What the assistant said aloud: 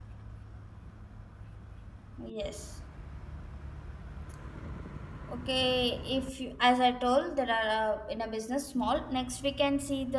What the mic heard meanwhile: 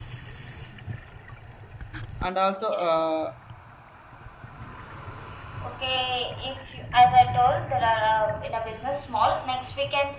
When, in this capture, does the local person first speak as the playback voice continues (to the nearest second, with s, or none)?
2 s